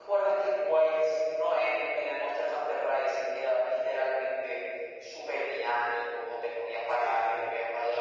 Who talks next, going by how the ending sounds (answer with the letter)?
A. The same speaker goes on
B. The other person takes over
A